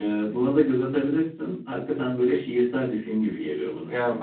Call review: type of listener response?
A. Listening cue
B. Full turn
B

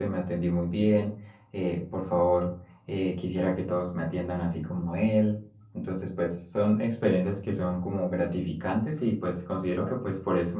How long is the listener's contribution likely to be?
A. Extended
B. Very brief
B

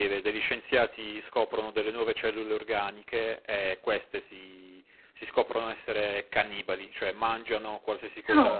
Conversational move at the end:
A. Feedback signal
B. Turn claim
A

